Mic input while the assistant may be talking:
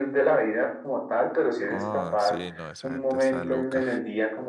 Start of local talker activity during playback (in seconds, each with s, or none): 1.6 s